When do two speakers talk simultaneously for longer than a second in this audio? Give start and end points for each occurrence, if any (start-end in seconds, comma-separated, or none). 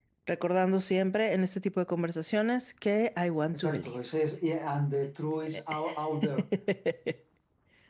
none